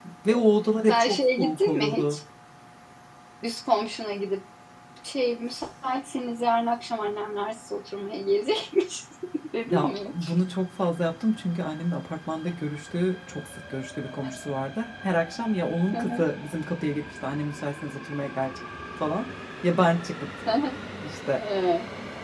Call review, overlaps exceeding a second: present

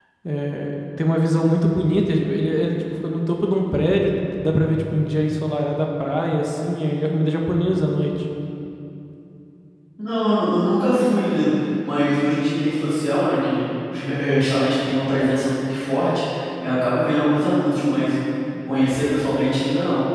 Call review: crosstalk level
none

